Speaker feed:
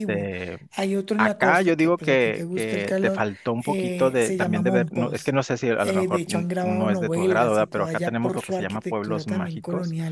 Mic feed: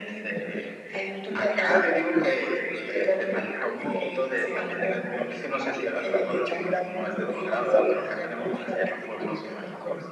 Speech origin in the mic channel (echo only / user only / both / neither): echo only